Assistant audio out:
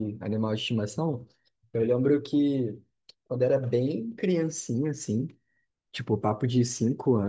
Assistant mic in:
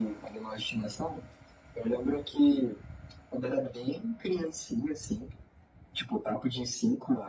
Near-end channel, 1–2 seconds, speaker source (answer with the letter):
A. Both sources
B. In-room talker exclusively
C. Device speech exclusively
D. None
C